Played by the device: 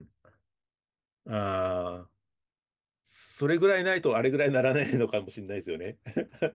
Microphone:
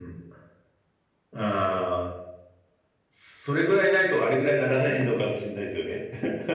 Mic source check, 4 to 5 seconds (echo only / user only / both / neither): echo only